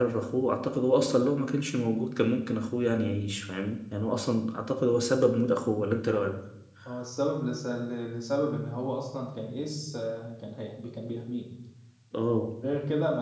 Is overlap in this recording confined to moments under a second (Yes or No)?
Yes